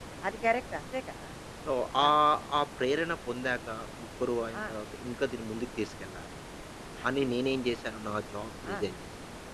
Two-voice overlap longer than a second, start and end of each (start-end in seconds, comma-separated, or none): none